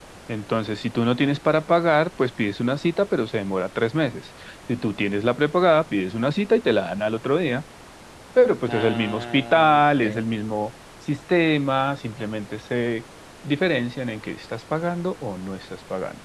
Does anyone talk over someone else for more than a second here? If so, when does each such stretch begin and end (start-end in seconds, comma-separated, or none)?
8.7-10.2